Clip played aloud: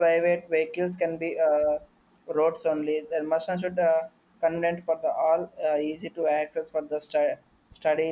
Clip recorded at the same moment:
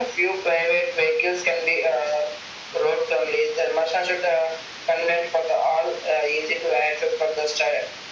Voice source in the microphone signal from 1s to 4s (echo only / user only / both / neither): echo only